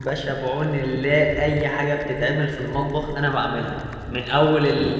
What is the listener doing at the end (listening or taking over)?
listening